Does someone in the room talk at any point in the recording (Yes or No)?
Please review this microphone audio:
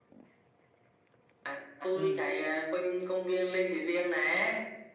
Yes